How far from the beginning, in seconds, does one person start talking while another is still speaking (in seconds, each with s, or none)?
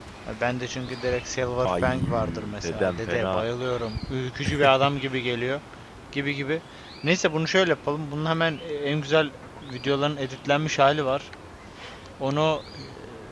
1.6 s